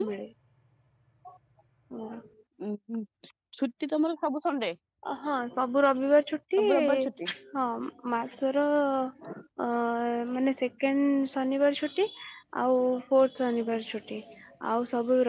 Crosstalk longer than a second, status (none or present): none